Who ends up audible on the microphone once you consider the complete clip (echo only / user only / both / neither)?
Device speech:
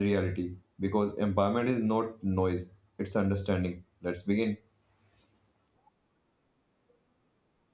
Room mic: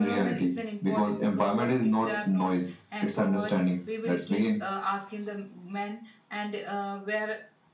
both